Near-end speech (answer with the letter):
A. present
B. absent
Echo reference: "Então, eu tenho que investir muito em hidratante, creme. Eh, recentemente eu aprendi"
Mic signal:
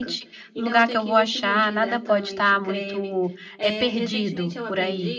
A